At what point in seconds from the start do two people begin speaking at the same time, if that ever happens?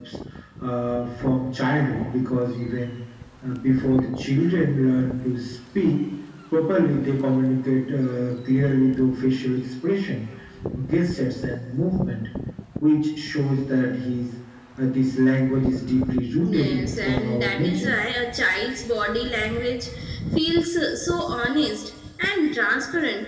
16.4 s

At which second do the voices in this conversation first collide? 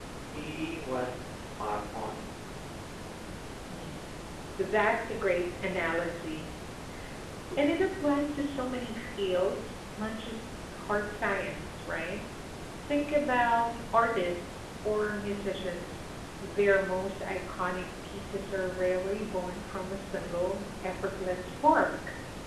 none

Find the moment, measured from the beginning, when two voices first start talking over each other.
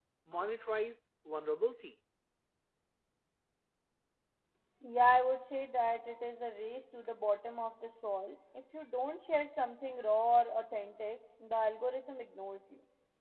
none

